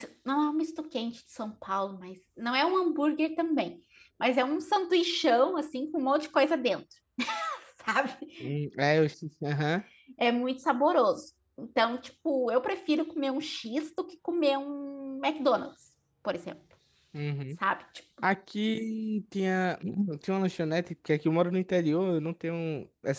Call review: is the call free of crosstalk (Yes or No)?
Yes